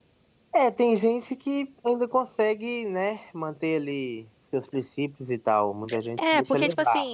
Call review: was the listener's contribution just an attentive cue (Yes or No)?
No